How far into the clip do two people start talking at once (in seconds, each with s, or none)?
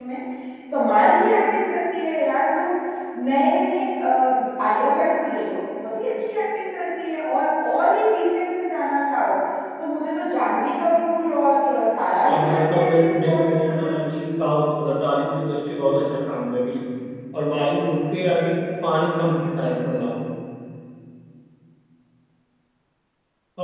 12.2 s